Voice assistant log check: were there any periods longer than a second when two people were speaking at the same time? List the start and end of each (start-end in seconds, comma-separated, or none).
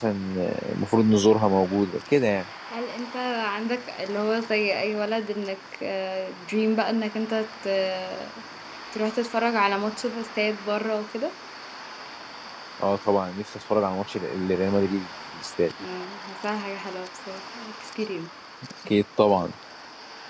none